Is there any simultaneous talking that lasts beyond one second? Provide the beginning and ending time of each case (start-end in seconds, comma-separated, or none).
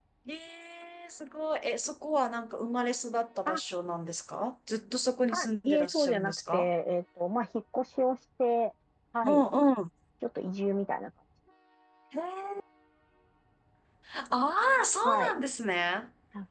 5.3-6.7